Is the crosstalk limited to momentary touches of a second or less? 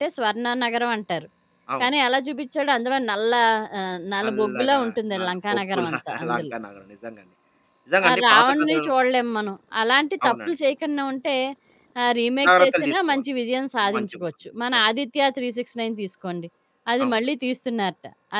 No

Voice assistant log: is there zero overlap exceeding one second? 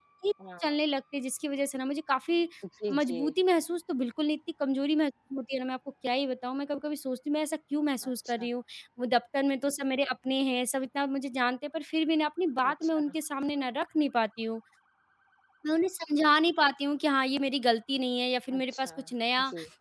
Yes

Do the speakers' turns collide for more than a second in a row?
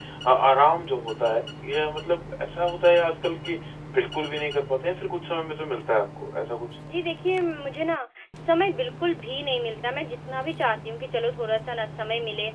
No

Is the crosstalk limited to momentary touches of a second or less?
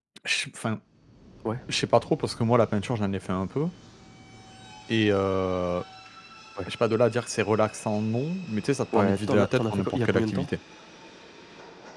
No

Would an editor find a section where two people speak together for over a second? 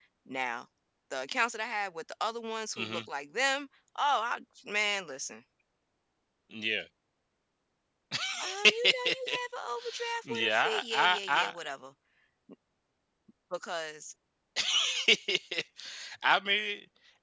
Yes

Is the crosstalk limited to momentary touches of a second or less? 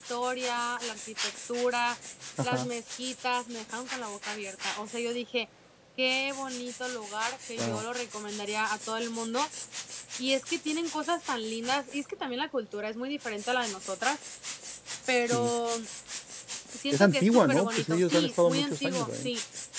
No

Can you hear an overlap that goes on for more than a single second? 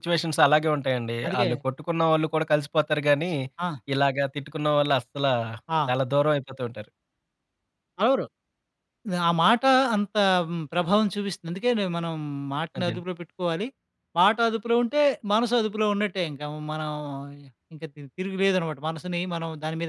No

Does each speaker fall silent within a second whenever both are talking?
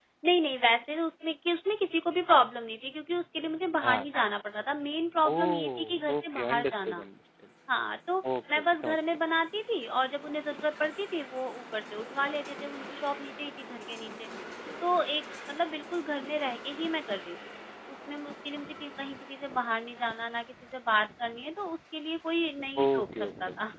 No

